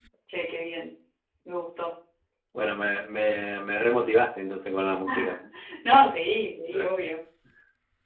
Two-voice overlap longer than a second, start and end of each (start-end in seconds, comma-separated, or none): none